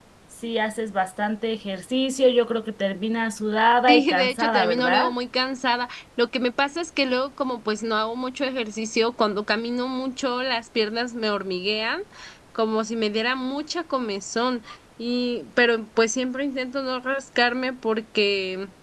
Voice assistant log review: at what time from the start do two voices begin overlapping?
3.9 s

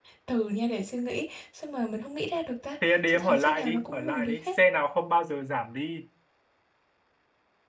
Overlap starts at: 3.1 s

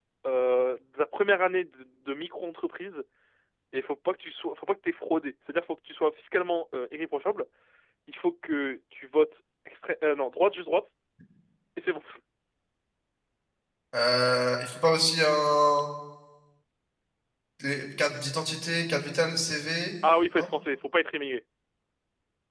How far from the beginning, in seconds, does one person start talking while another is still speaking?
none

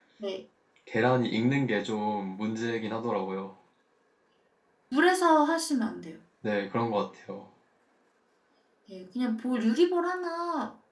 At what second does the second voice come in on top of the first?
none

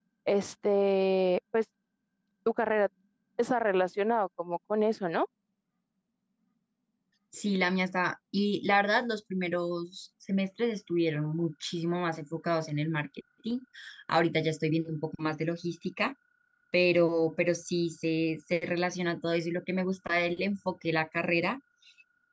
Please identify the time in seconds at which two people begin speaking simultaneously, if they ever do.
none

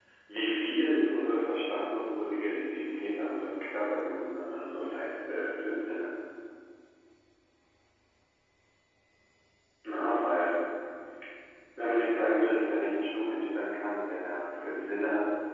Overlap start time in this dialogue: none

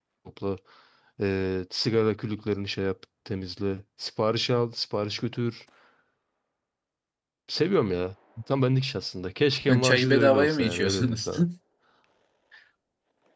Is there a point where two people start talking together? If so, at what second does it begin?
9.7 s

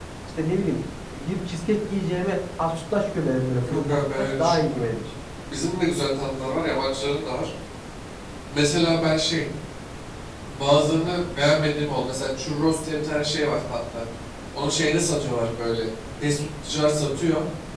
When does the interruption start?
3.7 s

